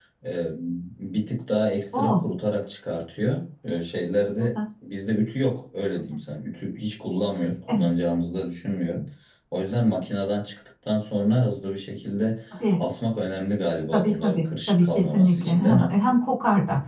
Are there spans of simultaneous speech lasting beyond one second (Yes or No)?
Yes